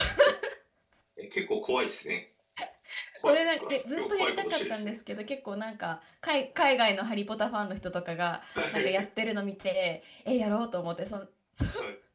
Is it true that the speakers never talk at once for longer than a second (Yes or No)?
No